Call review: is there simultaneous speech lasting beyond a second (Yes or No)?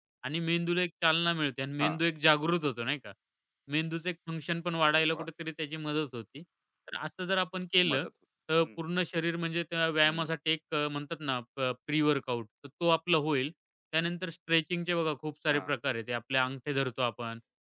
No